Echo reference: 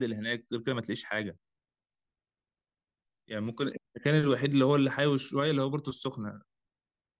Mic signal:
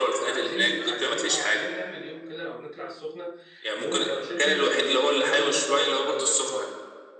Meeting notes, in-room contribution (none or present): present